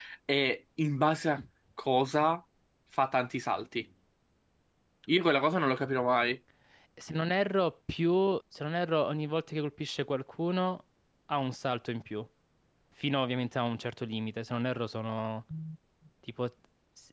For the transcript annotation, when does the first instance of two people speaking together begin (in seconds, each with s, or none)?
none